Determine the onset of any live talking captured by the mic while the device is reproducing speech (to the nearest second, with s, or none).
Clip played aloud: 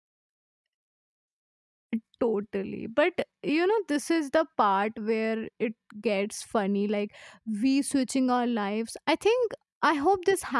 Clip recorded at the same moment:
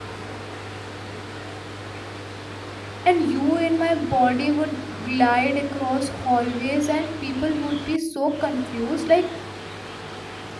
3 s